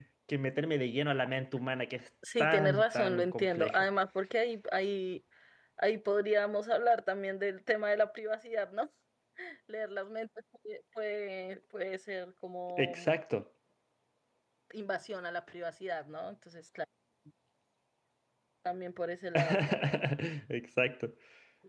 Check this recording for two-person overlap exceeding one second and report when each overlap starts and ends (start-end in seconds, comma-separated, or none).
2.4-3.8